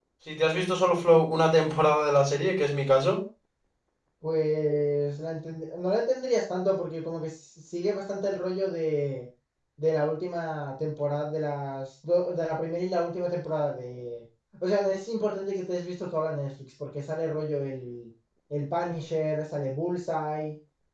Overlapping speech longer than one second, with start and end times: none

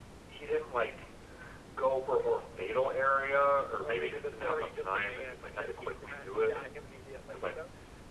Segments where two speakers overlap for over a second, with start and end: 3.8-6.6

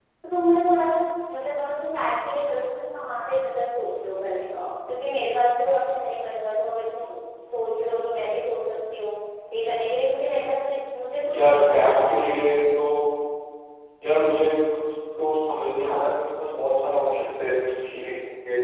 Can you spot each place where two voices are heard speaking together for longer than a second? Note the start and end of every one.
11.4-12.6

